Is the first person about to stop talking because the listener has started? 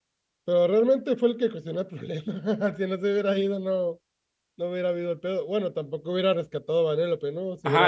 Yes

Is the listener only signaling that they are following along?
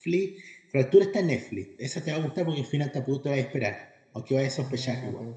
No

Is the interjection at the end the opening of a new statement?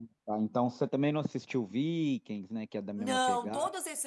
Yes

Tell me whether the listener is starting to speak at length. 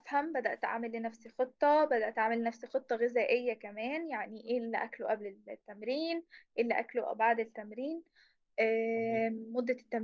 No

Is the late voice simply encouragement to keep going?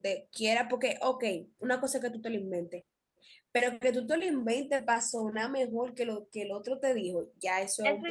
No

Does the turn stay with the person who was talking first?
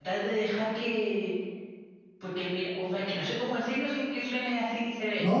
No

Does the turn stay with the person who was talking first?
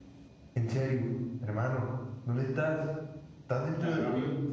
No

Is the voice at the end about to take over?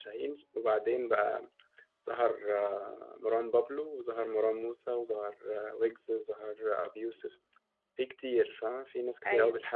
No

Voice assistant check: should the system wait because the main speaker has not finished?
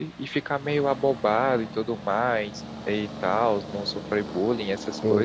No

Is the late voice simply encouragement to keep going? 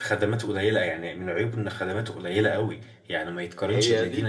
Yes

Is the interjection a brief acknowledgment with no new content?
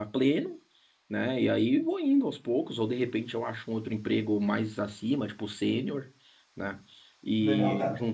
Yes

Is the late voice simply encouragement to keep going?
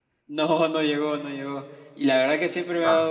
Yes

